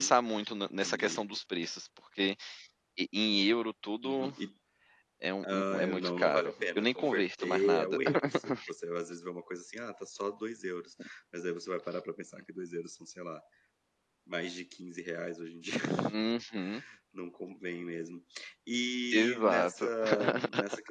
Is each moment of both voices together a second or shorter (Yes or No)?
No